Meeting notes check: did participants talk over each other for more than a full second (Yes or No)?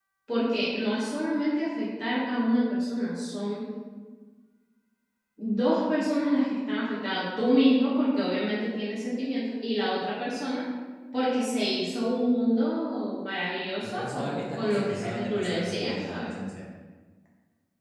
Yes